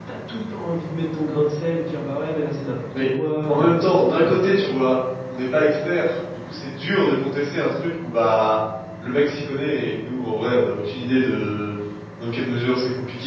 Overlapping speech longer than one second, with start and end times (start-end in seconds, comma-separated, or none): 3.5-4.8